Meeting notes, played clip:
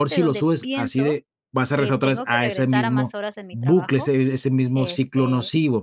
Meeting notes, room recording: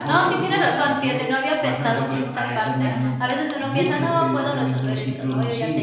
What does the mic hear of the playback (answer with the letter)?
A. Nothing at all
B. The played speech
B